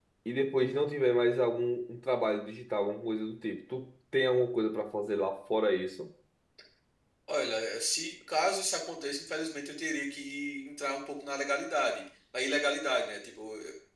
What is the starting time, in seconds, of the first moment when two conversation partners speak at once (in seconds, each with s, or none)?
none